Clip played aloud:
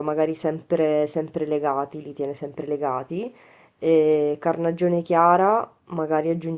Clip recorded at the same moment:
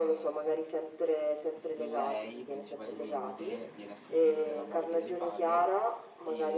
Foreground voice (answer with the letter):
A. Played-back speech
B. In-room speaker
A